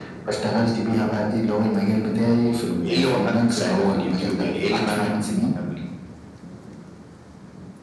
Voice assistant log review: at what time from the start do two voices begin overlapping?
2.8 s

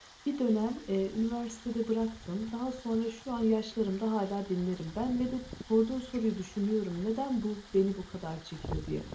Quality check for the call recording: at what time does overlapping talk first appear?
none

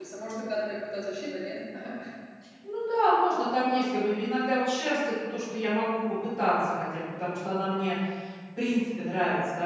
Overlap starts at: none

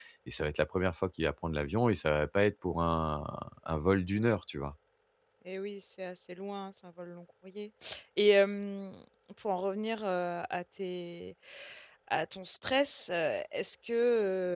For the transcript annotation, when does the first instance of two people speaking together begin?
none

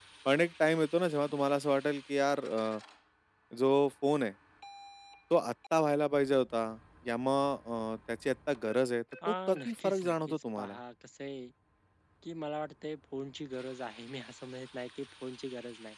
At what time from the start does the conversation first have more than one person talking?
9.2 s

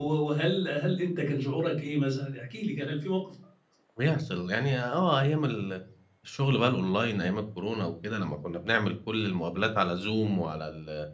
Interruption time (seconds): none

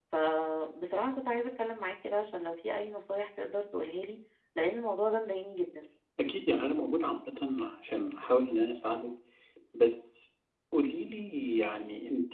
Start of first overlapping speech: none

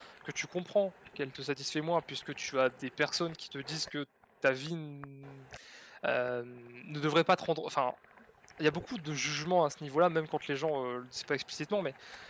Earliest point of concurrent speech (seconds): none

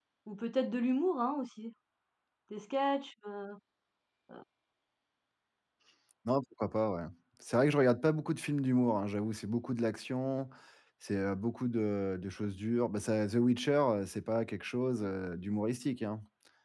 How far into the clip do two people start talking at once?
none

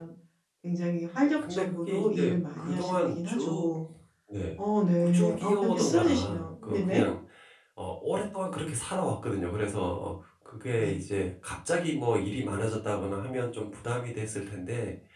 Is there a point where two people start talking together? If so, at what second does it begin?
1.5 s

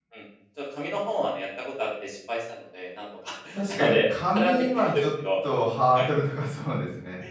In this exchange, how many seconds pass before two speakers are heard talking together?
3.8 s

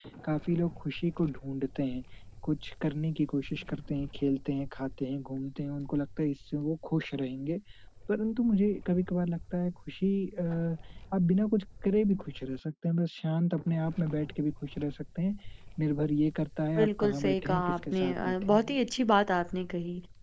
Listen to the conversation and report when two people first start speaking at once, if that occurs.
16.8 s

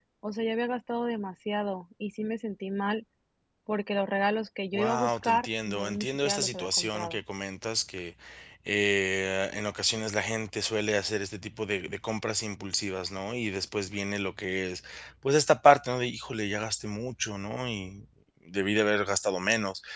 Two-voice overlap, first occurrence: 4.7 s

